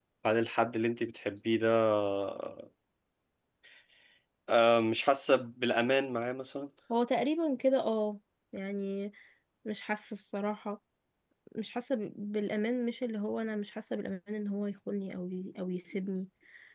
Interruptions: none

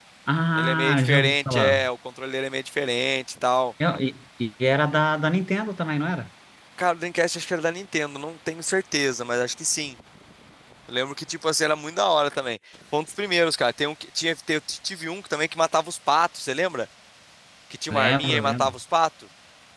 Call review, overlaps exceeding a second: present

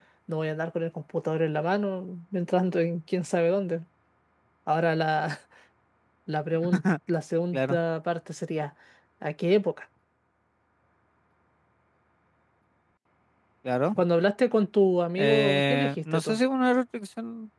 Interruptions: present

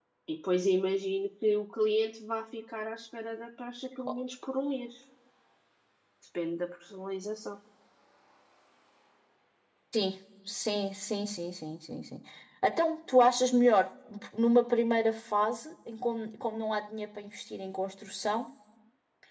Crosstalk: none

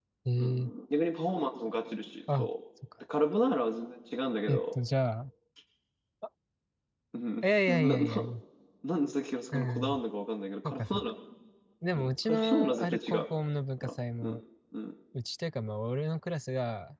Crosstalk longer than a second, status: present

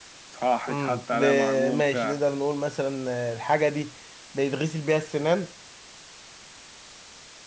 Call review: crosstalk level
present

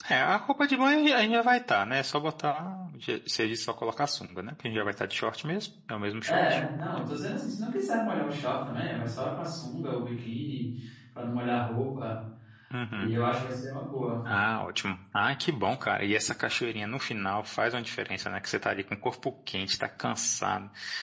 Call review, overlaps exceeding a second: none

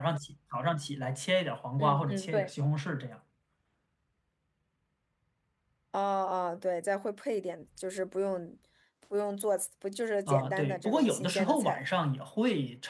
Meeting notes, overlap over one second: present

